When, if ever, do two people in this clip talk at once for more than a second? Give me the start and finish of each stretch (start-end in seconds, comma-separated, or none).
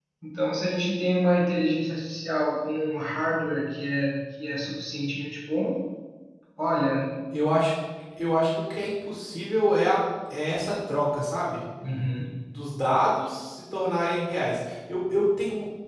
none